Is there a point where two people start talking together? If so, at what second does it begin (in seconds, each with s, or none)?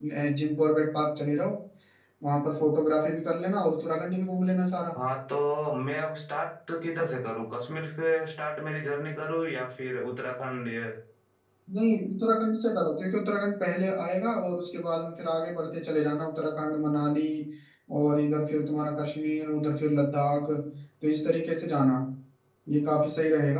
none